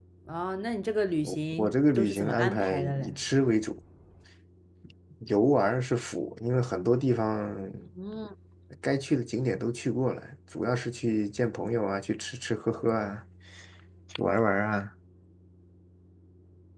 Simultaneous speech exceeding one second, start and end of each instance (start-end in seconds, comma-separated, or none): 1.6-3.1